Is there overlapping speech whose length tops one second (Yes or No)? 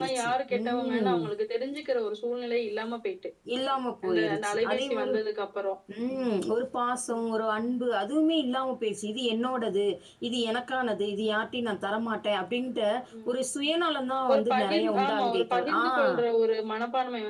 Yes